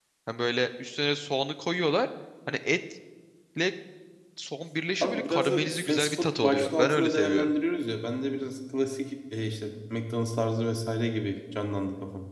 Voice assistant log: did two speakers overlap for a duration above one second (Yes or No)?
Yes